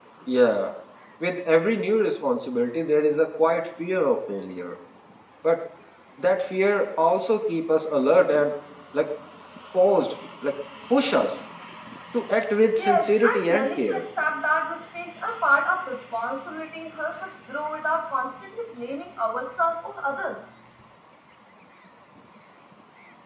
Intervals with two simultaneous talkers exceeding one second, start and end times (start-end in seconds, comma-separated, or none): 12.8-14.0